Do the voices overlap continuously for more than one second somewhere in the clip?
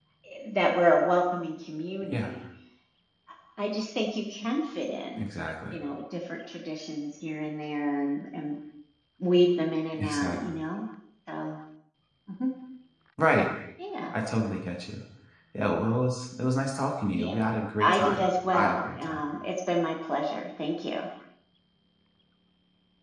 Yes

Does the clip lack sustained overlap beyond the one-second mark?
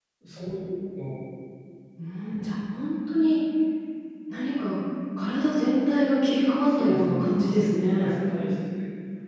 No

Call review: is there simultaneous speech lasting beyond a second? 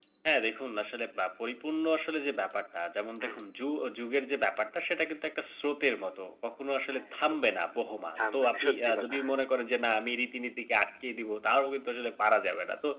Yes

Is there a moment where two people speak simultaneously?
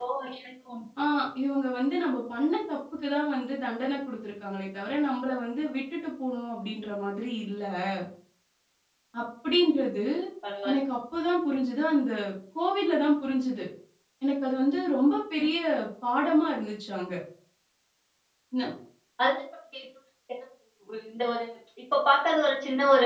No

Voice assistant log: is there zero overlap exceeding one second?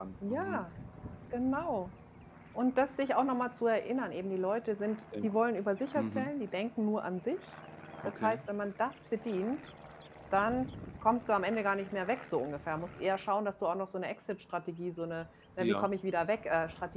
Yes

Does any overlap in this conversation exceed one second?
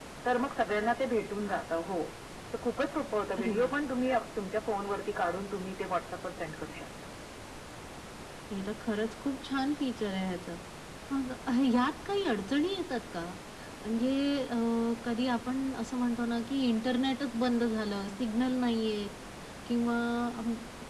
No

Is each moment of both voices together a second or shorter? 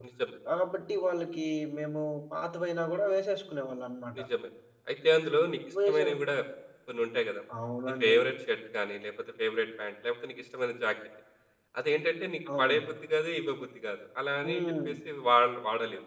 Yes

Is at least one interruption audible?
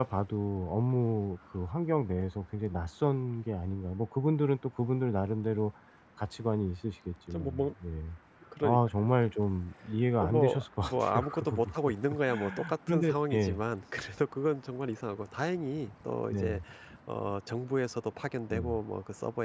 Yes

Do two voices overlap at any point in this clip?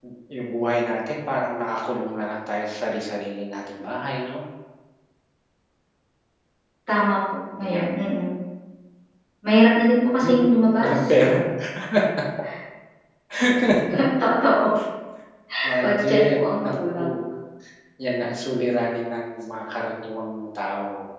Yes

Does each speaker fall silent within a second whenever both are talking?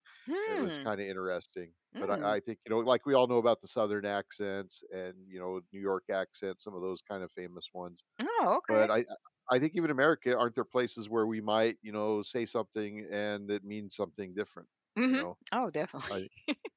Yes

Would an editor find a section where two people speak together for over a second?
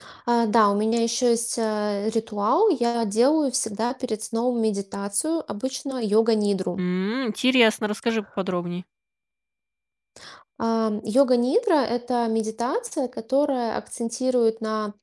No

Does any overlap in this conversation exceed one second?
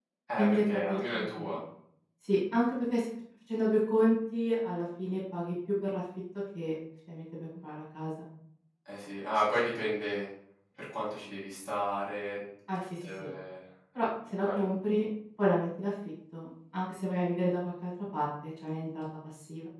Yes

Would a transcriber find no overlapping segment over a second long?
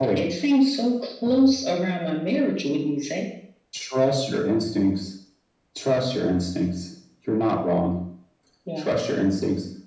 Yes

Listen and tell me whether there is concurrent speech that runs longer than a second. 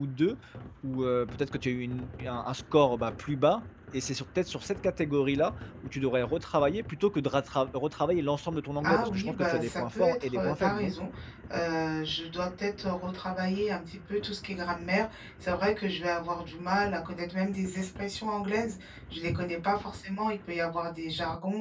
Yes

